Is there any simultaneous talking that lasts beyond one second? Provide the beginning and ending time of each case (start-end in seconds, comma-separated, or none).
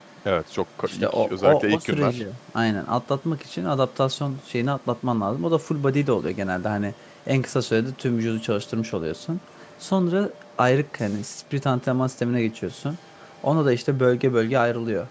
0.8-2.2